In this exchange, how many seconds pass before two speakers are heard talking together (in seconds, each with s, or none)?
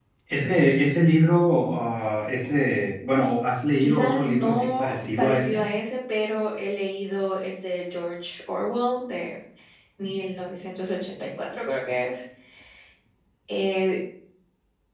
3.8 s